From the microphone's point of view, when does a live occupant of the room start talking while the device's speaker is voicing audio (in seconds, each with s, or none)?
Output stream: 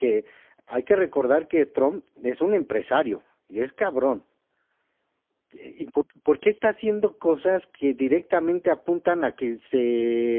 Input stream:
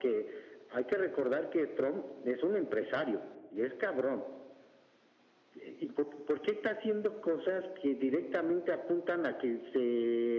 none